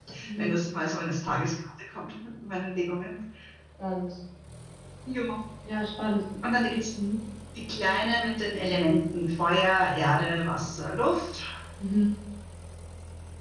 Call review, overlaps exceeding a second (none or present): none